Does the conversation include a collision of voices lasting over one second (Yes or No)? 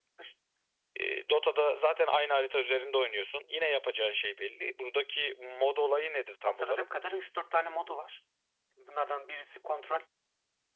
No